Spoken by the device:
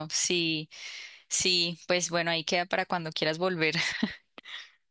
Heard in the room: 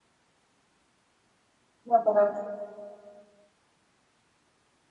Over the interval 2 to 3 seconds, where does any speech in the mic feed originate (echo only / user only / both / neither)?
user only